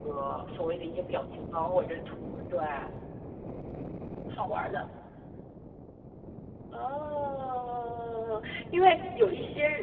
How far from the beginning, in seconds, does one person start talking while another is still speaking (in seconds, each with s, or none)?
none